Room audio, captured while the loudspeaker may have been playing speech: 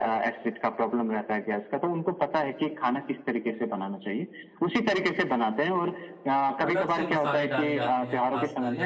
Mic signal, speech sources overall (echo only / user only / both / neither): both